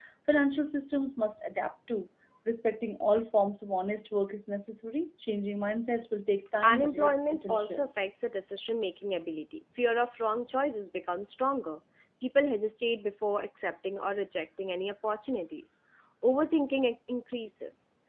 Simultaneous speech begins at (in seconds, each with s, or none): 6.6 s